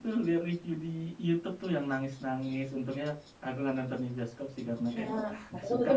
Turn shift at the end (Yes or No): Yes